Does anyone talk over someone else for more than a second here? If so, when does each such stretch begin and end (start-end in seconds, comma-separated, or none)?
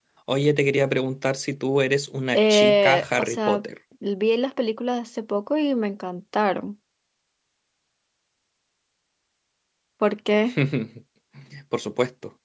2.3-3.6